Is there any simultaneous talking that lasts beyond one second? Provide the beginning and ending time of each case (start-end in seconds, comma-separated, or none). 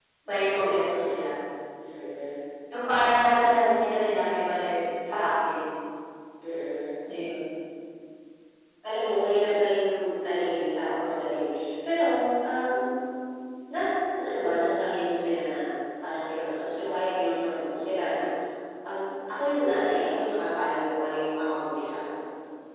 none